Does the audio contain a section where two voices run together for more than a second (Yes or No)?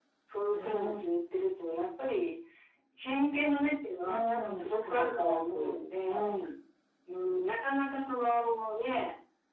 Yes